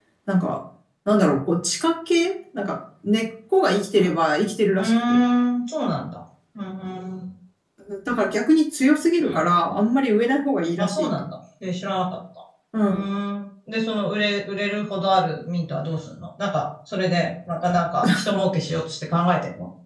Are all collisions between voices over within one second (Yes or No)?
Yes